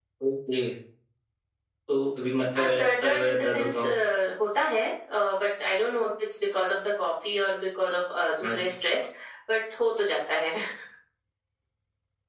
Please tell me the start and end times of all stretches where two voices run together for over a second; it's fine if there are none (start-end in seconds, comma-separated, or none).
2.6-3.9